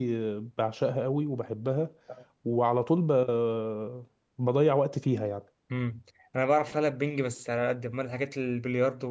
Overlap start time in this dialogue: none

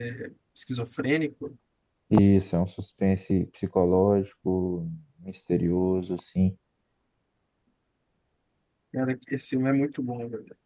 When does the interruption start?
none

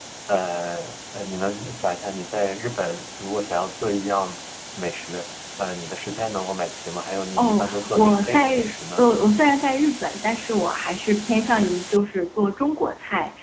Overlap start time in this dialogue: 7 s

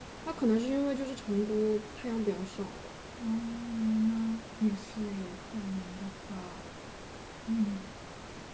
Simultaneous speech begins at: none

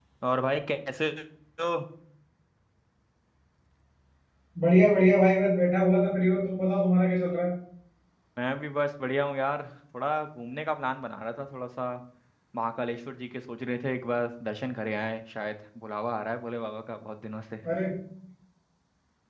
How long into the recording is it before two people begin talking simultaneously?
none

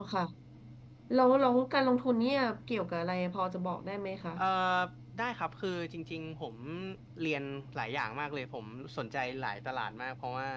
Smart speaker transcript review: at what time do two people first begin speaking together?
none

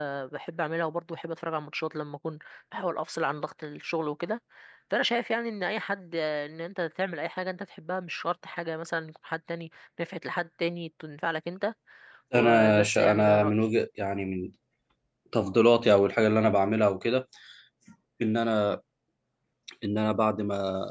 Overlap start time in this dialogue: 12 s

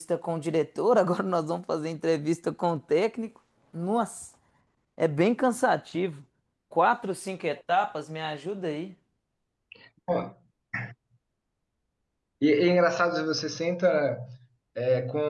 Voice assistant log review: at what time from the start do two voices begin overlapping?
none

